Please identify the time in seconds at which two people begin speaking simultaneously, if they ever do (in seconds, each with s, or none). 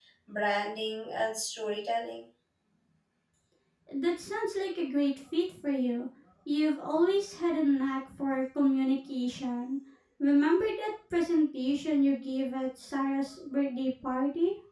none